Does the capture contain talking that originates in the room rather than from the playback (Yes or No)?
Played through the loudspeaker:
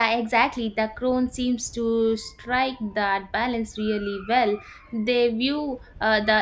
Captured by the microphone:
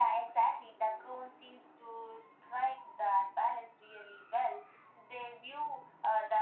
No